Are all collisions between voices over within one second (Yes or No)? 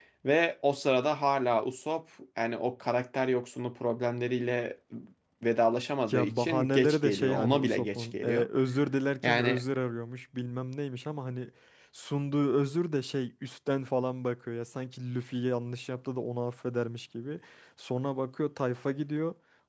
No